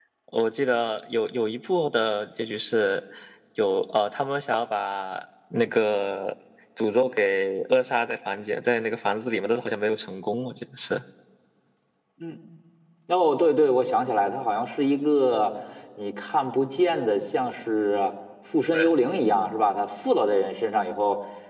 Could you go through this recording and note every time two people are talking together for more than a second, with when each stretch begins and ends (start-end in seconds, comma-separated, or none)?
none